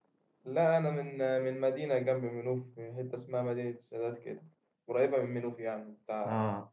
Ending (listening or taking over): taking over